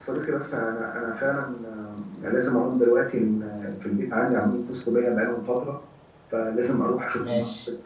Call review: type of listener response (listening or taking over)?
listening